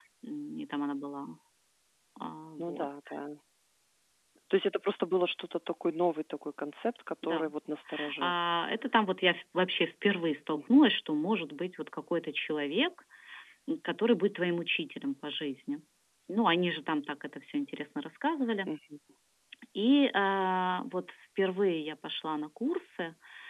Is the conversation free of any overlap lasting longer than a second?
Yes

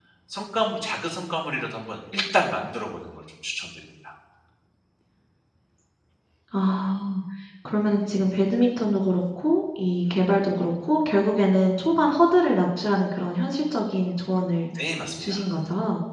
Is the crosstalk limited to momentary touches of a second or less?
Yes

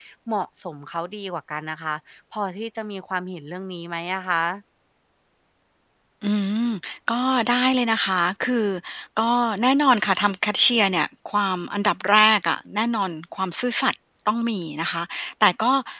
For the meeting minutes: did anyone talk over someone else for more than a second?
No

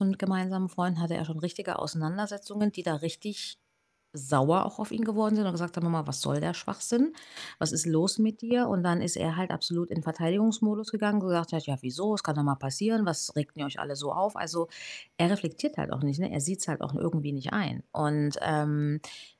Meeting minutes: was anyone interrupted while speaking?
No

